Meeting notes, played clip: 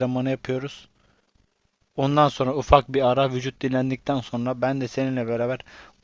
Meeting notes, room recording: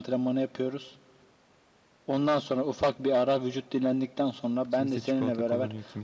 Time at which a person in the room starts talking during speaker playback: 4.7 s

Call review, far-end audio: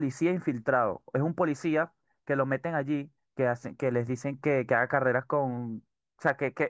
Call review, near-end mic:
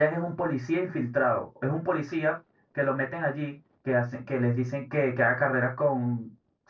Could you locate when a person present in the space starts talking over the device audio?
none

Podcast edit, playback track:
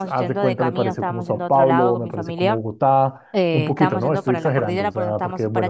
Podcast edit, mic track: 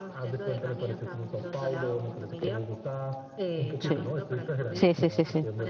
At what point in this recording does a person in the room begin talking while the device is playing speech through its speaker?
3.8 s

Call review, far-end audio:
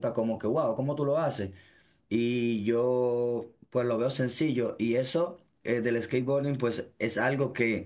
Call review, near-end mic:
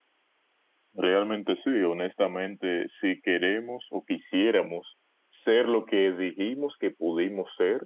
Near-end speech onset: 0.9 s

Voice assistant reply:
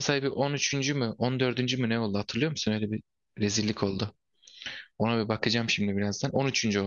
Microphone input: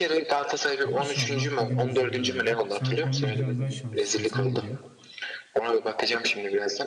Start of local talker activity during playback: 0.8 s

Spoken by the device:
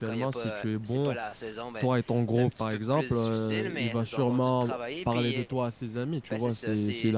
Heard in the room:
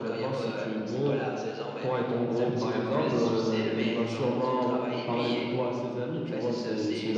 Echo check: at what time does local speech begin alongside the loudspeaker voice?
none

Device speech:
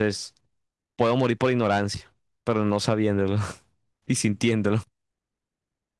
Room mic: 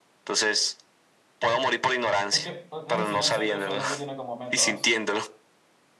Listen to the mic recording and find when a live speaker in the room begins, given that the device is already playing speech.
2.3 s

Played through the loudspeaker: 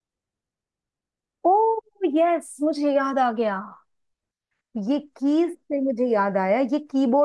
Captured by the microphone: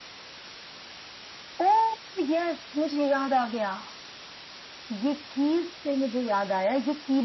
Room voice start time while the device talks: none

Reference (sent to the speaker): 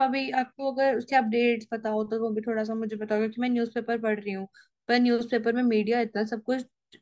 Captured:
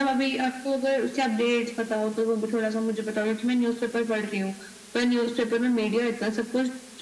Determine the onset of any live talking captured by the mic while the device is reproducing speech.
none

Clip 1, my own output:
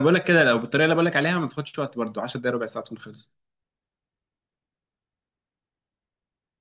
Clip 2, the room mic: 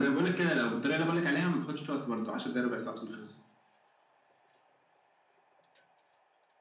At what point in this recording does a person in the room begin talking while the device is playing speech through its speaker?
none

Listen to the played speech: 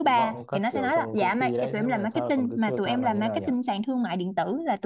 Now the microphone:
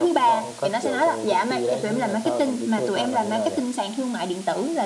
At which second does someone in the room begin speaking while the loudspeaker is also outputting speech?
none

